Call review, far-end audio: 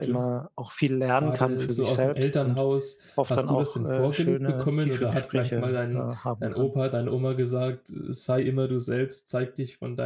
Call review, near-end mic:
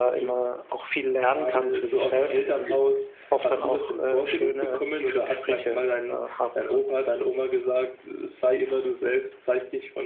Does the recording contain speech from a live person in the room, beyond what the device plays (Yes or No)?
Yes